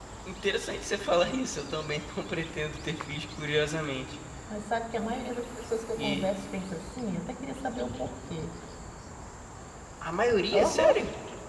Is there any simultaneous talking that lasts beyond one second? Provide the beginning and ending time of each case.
none

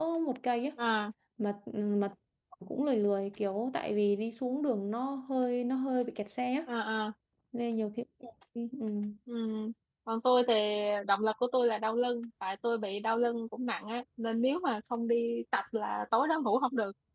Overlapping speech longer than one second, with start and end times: none

